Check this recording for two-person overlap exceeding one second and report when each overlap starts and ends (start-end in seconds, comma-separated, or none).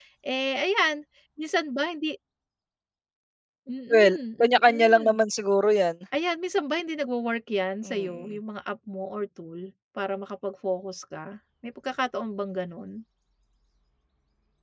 3.9-5.2